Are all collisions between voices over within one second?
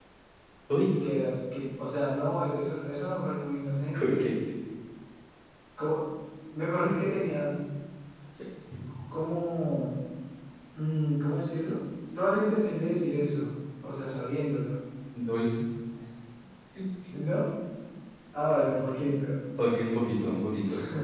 Yes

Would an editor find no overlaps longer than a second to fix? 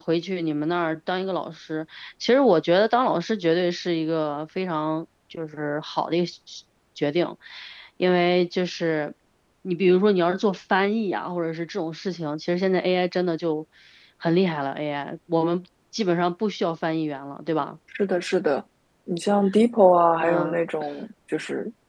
Yes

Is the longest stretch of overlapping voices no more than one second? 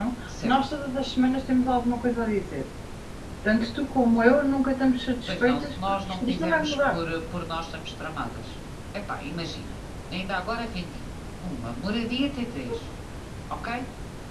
No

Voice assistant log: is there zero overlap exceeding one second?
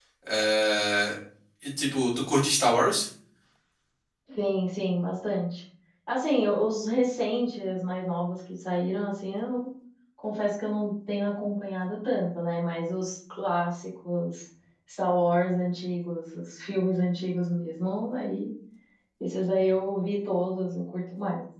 Yes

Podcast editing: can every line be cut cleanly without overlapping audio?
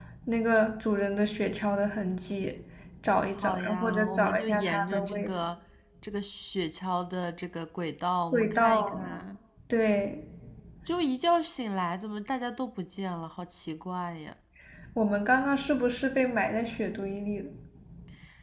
No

